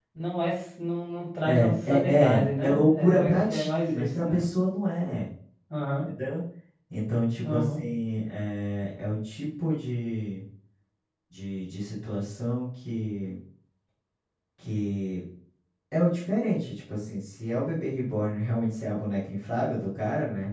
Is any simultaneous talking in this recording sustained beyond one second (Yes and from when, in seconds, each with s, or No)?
Yes, from 1.4 s